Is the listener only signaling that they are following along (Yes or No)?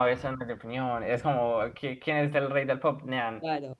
No